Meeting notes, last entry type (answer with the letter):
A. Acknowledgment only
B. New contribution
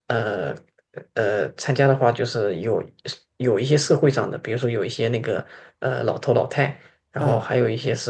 A